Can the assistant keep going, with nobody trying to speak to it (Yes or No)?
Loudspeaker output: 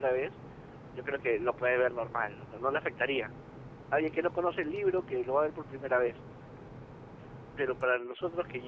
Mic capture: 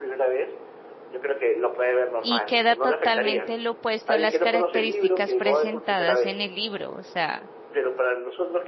No